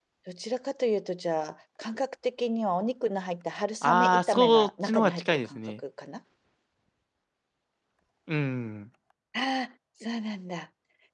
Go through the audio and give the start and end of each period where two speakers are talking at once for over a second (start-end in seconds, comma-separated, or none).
3.8-5.8